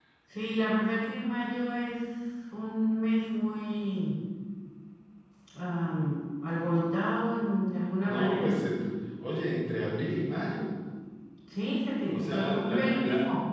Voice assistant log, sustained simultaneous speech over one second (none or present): present